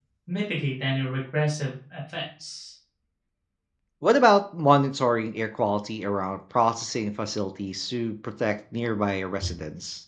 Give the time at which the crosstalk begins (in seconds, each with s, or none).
none